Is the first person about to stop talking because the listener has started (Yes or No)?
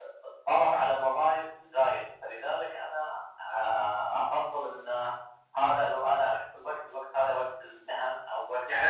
Yes